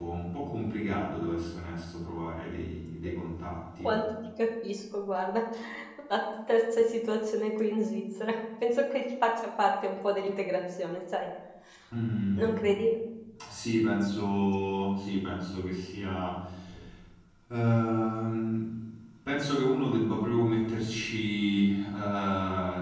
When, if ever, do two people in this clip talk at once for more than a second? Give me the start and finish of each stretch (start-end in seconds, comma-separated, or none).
none